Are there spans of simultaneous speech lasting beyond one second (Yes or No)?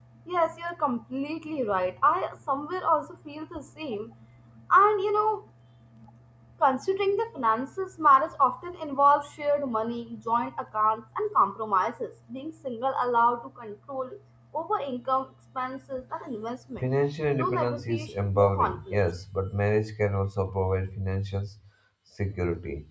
Yes